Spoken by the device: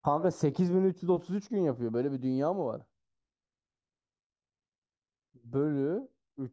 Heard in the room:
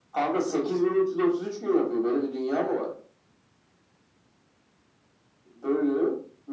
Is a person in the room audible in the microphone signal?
No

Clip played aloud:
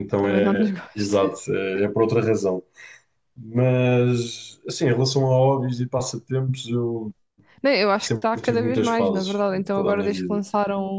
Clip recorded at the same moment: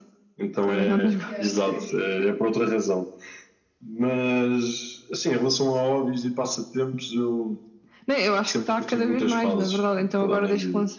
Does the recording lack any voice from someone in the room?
No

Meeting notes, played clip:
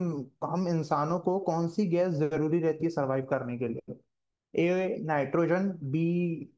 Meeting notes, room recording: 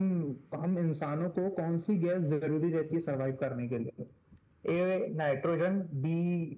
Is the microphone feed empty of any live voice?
Yes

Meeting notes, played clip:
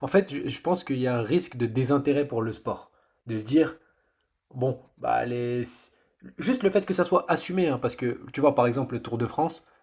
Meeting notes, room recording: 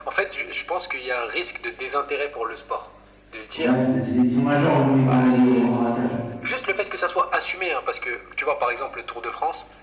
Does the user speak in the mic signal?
Yes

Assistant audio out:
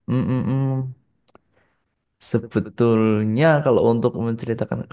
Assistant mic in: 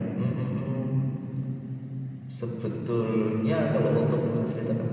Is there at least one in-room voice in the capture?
No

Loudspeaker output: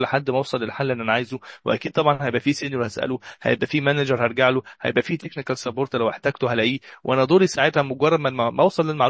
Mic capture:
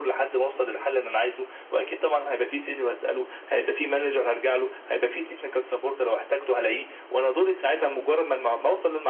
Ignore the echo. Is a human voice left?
No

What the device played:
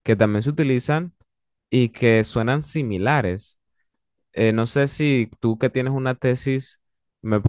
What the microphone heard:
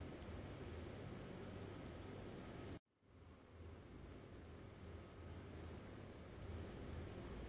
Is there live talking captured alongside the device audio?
No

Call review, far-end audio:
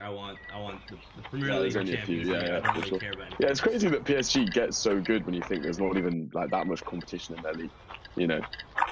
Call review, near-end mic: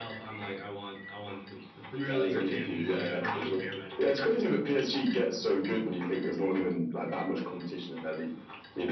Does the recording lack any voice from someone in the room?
Yes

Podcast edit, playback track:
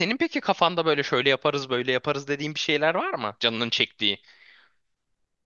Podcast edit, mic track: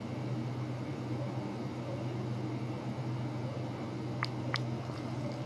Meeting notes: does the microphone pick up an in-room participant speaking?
No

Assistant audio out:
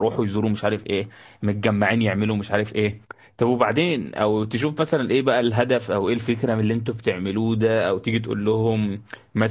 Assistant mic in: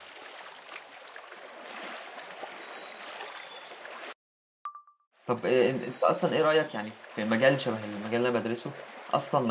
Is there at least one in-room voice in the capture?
Yes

